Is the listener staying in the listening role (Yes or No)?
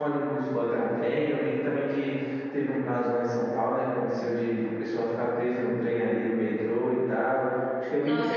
No